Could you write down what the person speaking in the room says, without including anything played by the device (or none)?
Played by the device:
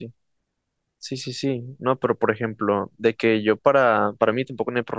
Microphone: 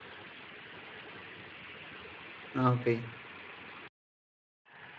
Ah, ok.